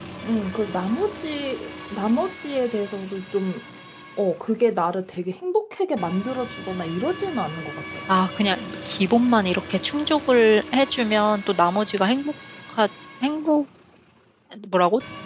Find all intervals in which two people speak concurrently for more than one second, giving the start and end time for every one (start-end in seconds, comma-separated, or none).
none